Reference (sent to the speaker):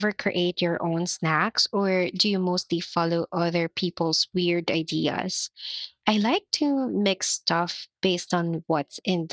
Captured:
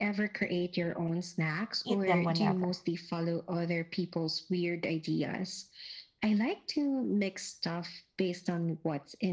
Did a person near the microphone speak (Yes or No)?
Yes